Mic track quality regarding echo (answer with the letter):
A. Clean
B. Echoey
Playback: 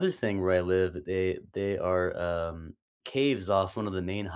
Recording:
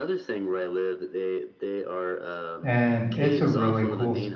B